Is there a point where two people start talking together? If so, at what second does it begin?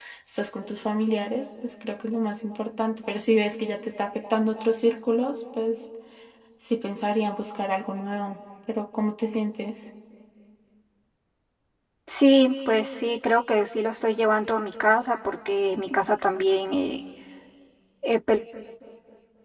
none

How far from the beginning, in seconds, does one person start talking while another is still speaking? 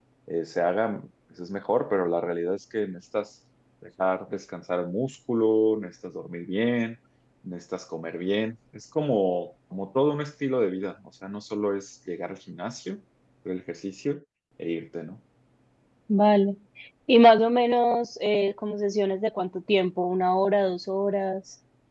none

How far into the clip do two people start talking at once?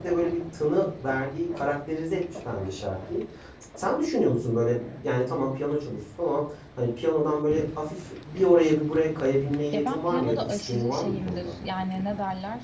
10 s

